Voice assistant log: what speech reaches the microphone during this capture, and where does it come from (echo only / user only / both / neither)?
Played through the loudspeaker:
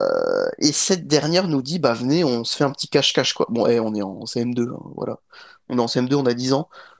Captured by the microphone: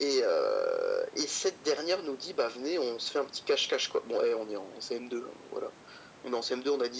echo only